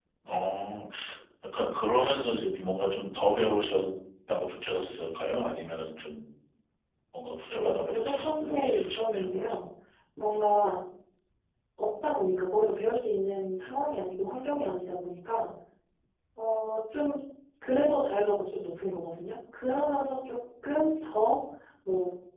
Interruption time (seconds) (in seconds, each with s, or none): 7.5 s